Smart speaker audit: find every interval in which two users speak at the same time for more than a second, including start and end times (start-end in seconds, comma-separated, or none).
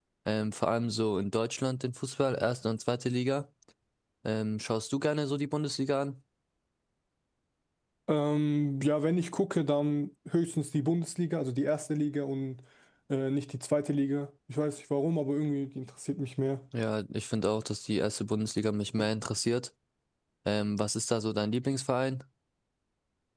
none